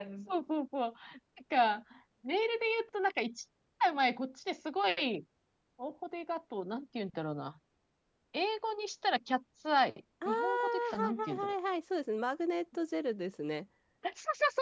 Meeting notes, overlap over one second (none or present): present